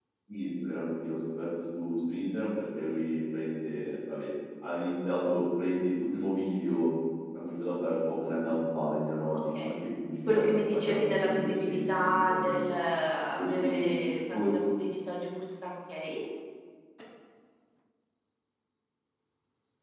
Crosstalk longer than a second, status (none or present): present